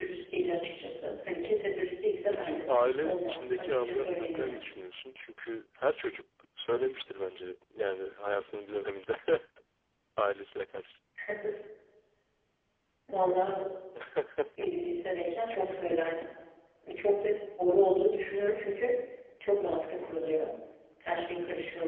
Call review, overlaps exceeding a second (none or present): present